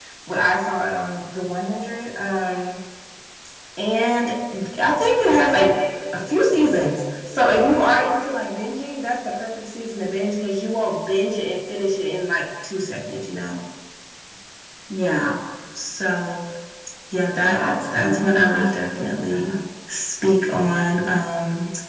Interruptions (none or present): present